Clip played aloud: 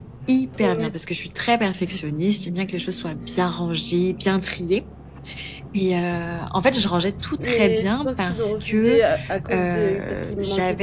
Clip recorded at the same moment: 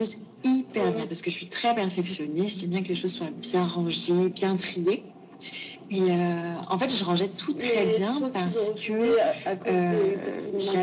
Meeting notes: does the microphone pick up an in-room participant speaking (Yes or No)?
No